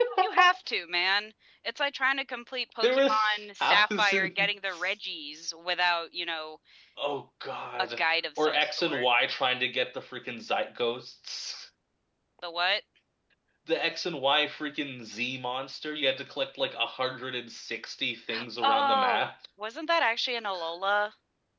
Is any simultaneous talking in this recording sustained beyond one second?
Yes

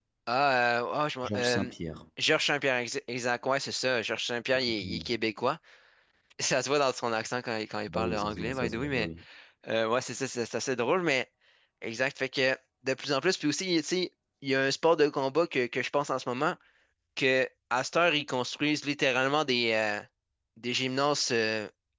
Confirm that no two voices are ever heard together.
No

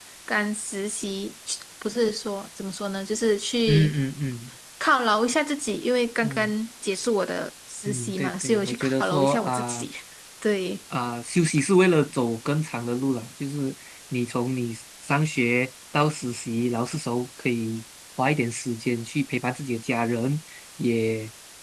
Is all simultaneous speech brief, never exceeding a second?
No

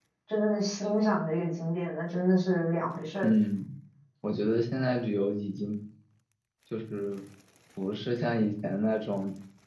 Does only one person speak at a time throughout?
Yes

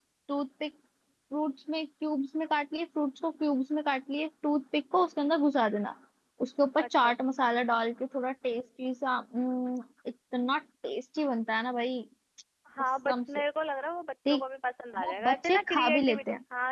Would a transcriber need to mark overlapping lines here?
Yes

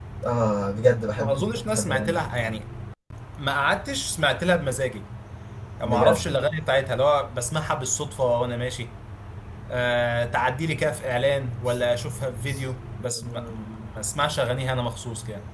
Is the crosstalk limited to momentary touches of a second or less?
No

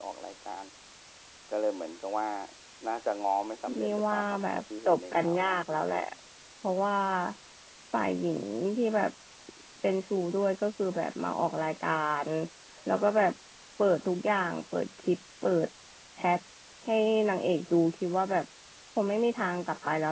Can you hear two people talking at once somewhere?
Yes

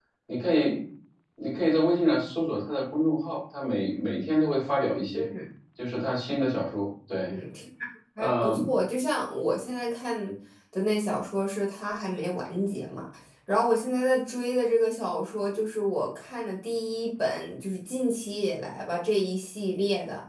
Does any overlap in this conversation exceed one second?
No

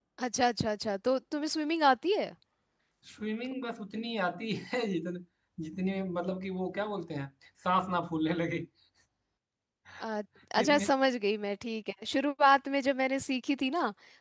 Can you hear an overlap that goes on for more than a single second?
No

